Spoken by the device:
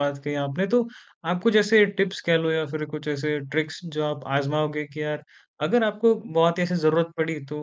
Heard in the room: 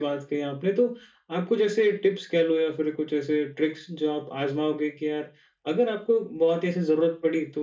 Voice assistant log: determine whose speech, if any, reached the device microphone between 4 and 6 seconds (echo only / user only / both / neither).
echo only